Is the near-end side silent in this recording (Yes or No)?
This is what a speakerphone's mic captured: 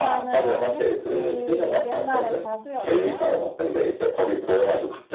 No